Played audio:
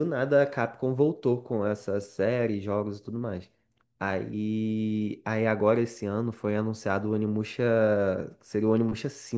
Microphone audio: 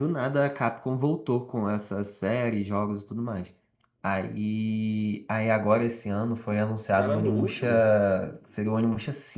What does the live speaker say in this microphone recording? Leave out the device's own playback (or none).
Caramba, o último?